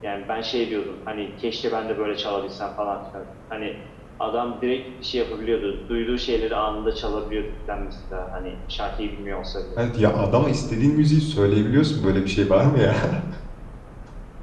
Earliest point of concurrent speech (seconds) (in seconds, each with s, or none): none